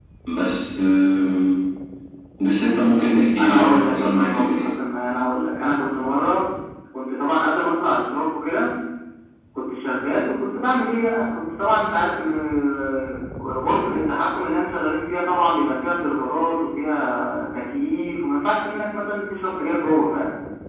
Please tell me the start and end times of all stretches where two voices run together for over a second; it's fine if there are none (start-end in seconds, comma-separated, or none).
3.4-4.7